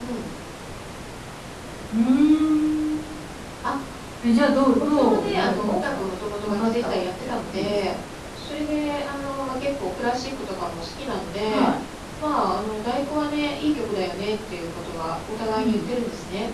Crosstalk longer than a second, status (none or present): present